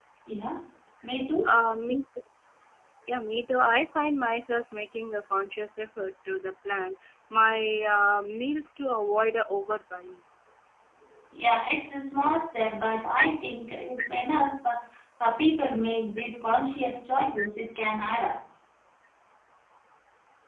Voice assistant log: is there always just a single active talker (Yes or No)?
Yes